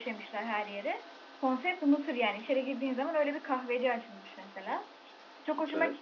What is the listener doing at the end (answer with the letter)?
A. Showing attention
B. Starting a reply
A